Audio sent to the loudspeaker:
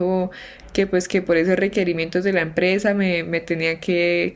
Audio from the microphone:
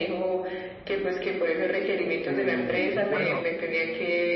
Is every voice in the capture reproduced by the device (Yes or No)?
No